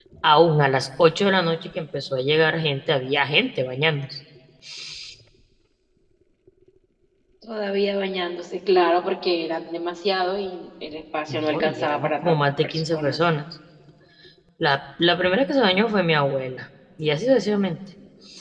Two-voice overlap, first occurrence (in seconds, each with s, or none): 11.3 s